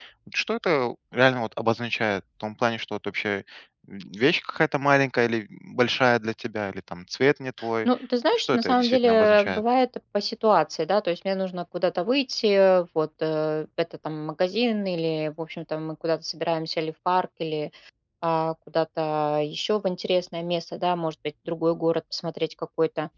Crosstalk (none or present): present